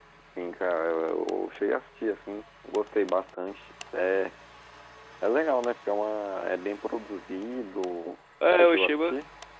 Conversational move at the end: taking over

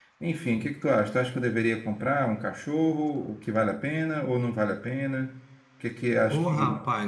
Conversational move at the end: taking over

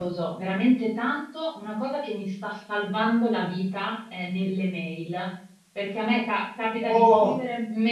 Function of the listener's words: listening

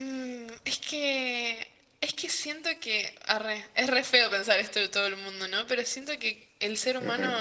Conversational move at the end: listening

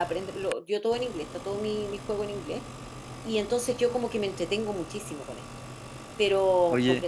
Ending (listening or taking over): listening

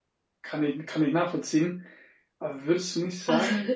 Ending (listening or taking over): listening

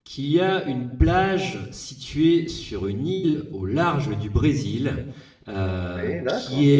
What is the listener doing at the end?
listening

